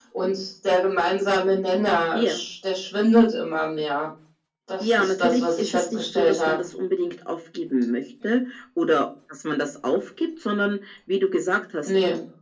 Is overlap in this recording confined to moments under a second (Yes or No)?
No